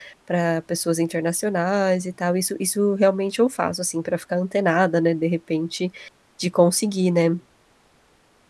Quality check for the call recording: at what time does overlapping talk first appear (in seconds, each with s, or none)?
none